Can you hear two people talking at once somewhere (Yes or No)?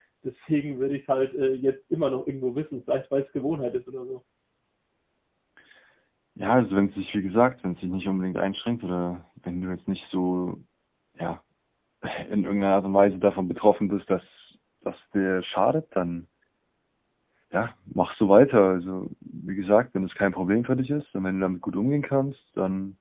No